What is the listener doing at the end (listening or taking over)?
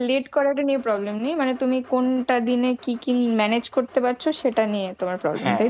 taking over